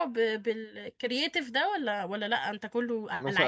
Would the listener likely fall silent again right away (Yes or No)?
No